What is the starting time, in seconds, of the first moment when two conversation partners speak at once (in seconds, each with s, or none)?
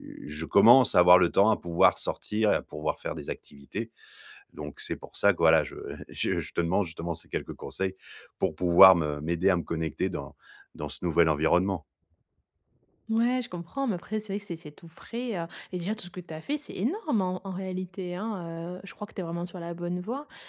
none